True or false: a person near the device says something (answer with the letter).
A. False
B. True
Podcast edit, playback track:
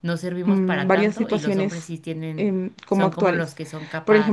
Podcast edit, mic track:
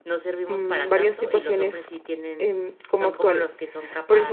A